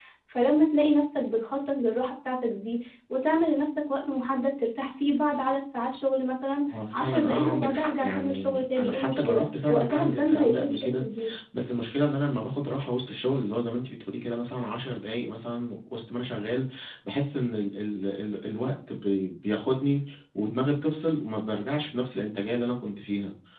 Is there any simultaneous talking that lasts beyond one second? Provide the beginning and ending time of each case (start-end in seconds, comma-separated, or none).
6.7-11.0